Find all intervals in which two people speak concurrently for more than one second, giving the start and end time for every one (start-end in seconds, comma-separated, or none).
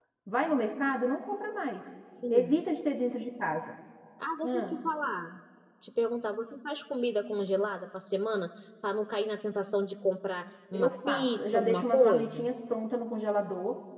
10.7-12.5